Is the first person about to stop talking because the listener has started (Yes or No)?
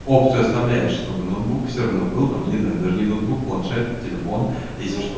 Yes